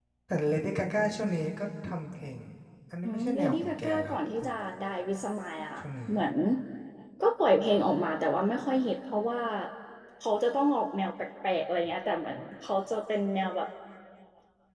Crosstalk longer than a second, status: present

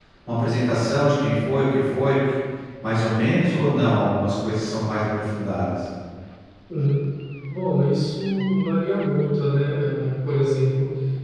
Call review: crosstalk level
none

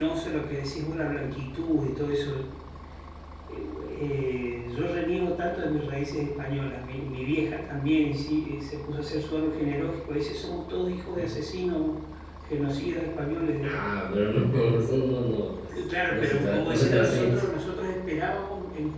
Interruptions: present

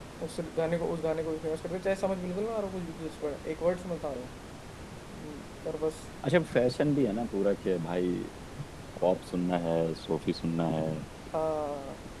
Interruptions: none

